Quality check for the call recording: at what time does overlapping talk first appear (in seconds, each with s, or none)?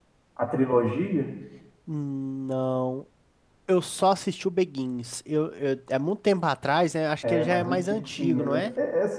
7.2 s